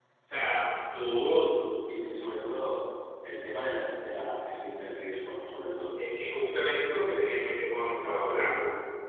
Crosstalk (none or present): none